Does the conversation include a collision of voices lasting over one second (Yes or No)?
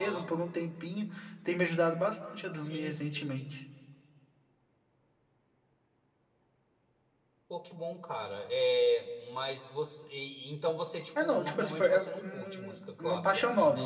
Yes